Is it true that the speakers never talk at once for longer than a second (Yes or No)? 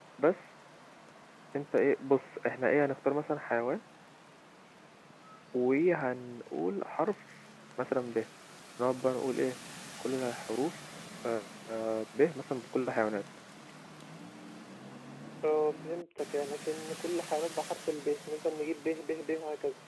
Yes